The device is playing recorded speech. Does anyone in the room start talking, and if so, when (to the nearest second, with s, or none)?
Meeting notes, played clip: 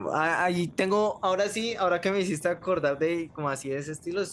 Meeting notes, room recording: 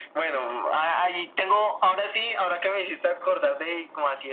none